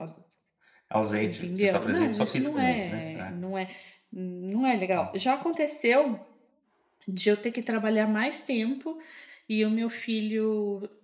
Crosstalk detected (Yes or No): Yes